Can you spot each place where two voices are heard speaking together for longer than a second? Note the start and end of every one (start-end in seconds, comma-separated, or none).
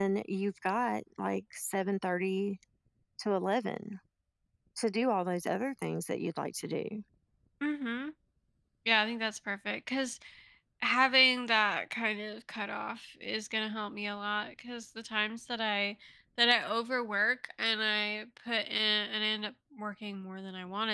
none